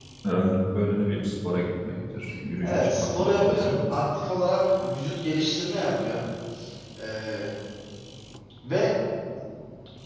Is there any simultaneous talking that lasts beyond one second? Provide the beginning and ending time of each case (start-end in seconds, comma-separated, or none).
2.6-4.0